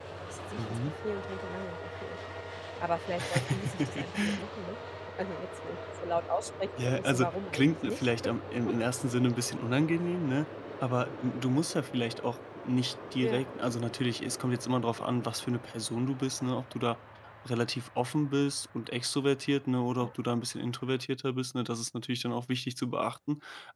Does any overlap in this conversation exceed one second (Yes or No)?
Yes